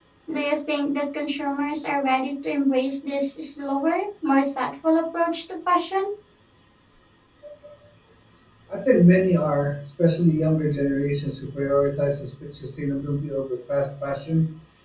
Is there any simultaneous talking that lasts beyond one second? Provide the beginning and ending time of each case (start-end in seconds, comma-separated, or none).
none